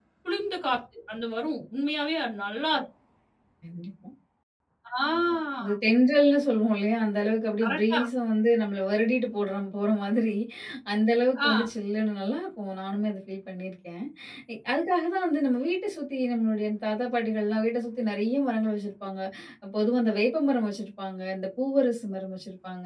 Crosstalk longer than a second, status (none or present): none